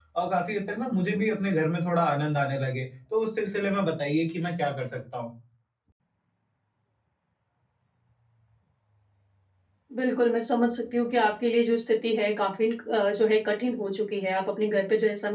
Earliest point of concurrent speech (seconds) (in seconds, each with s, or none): none